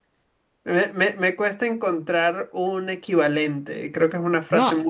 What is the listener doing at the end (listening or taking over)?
taking over